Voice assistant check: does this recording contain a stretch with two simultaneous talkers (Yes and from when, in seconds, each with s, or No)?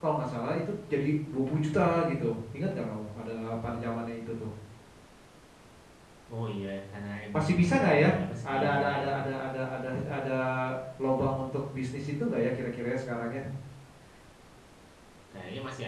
Yes, from 7.3 s